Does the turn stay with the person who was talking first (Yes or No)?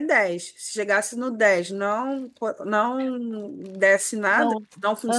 Yes